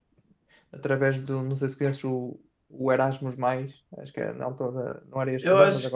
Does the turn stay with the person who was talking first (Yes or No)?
No